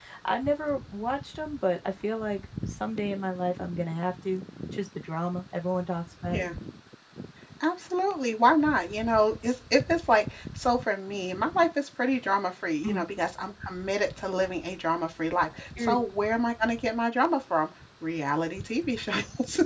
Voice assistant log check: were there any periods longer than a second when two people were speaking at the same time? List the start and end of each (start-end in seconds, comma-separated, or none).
none